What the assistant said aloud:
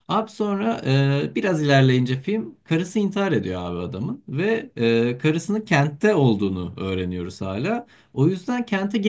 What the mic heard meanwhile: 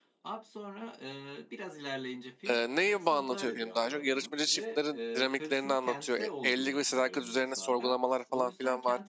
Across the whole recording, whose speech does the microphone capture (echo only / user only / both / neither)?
both